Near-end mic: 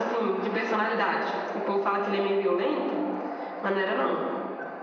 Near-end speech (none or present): none